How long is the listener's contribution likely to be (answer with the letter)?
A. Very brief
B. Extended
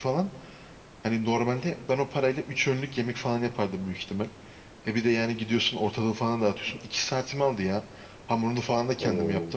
A